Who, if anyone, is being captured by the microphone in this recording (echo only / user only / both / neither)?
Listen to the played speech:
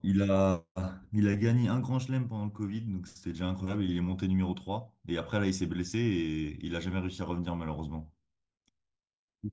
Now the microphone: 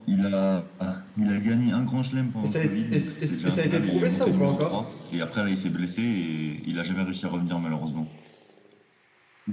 both